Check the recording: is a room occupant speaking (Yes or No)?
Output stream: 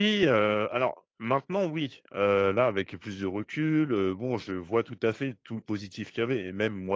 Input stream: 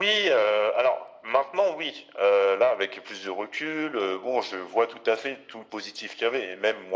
No